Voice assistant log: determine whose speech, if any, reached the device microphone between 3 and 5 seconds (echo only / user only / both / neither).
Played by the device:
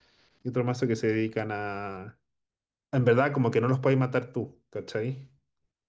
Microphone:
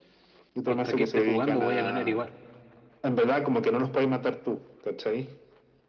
echo only